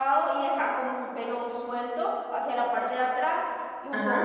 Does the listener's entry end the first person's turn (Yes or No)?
No